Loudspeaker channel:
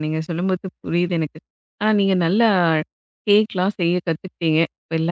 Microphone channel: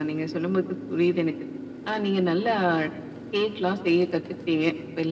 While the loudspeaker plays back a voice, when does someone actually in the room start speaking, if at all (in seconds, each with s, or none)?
none